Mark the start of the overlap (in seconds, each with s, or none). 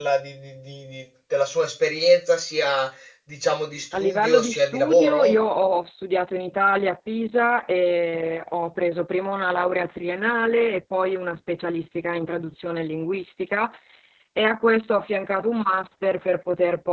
3.9 s